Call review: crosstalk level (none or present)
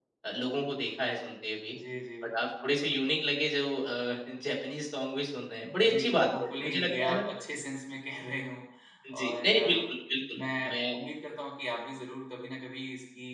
present